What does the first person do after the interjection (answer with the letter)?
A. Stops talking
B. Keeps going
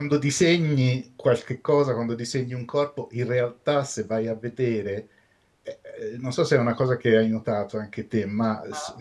B